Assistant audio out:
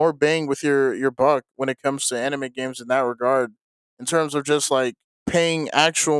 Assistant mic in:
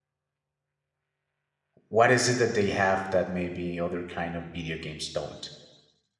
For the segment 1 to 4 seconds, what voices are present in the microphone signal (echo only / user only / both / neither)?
user only